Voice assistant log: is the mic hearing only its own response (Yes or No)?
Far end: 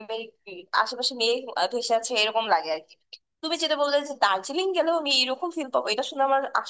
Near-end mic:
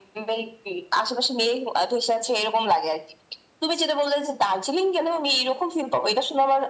Yes